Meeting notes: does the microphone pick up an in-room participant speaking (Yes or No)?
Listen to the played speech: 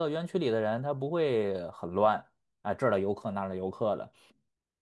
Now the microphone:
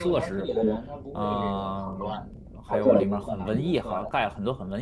Yes